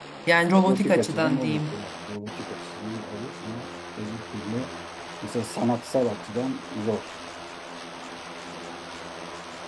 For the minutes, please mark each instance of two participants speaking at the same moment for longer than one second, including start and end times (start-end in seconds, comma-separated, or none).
0.6-1.8